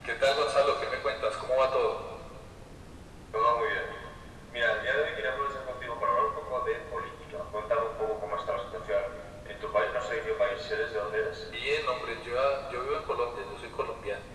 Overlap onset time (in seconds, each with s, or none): none